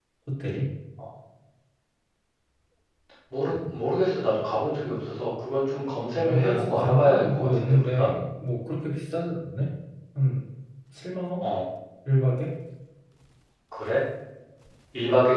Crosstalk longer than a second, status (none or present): present